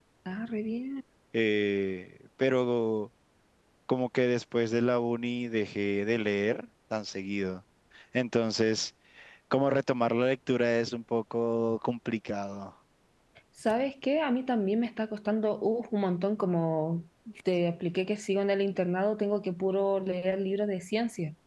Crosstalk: none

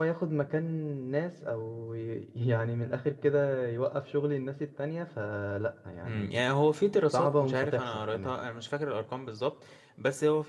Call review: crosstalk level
present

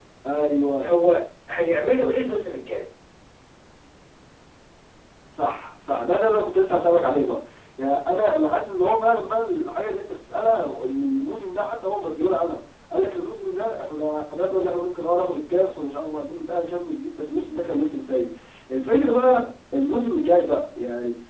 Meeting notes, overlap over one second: none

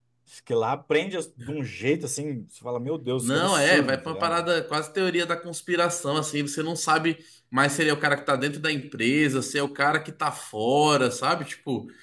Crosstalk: present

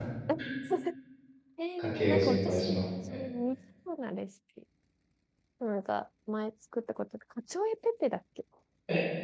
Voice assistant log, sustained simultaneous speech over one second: present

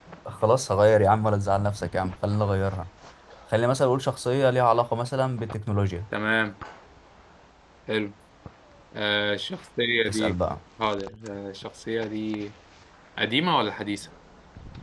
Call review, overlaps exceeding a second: none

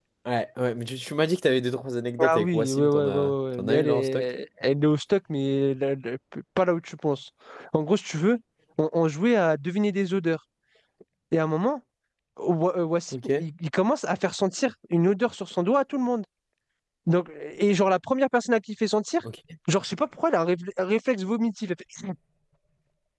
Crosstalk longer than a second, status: present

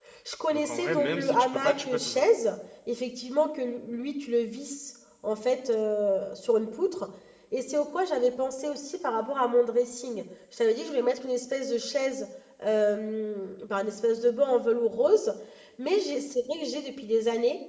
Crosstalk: present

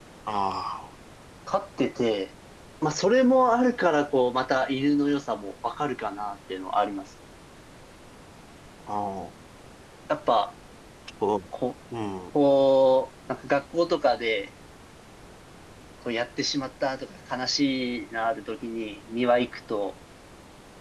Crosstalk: none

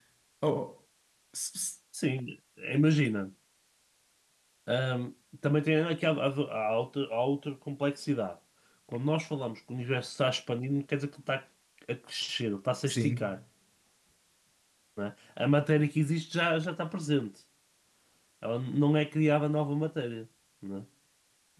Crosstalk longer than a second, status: none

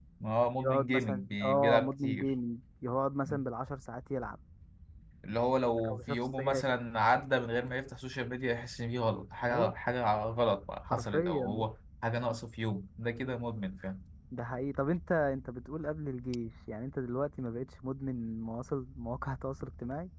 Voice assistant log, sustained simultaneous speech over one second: present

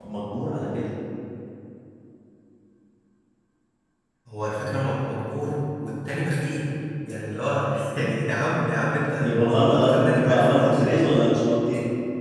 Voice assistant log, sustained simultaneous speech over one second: present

